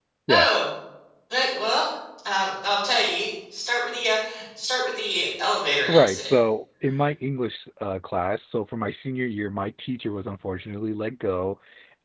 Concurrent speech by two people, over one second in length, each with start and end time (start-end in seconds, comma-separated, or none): none